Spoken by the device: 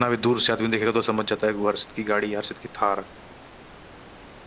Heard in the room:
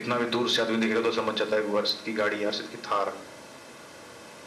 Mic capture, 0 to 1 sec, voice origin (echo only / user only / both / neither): echo only